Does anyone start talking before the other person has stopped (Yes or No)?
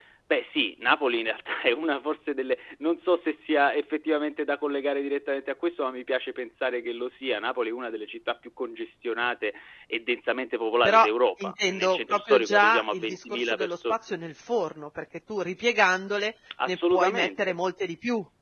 Yes